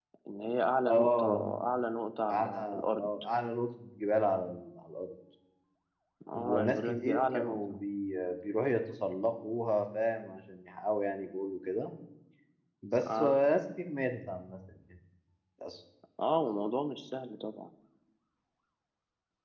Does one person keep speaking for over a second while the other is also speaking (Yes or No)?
Yes